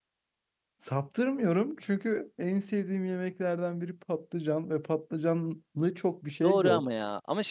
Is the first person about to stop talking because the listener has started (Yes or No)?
Yes